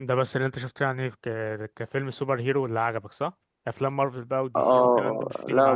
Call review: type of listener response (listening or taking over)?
taking over